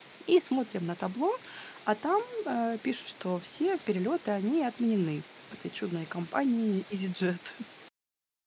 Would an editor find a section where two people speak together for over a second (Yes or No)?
No